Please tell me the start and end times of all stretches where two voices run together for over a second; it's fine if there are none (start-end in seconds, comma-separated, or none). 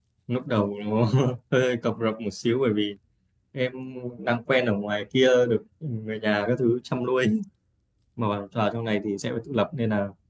none